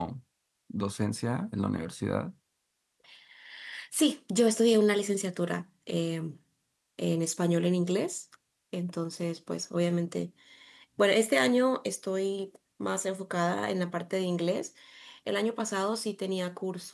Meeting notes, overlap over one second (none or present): none